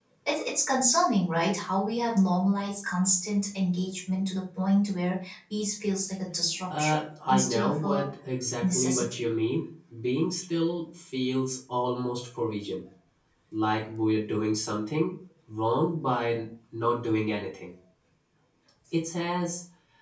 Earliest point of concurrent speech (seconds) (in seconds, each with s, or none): 6.8 s